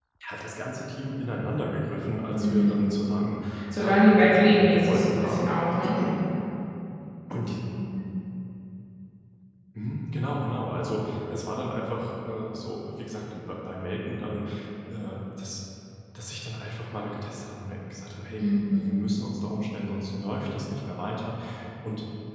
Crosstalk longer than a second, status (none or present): present